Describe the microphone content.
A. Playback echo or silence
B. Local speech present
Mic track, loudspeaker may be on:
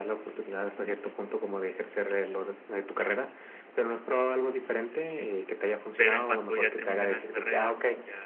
B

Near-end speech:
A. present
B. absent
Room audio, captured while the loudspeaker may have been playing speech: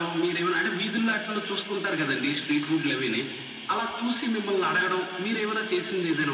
B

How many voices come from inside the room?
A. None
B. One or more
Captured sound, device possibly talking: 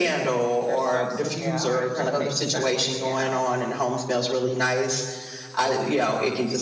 B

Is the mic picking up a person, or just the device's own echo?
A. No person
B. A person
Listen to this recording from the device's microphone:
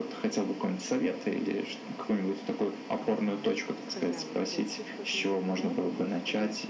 B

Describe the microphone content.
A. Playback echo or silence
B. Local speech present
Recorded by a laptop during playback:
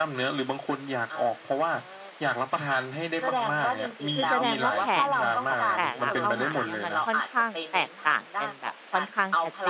B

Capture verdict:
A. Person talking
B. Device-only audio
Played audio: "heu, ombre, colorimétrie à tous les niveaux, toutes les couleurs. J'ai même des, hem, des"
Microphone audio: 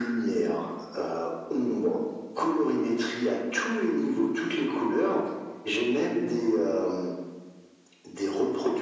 B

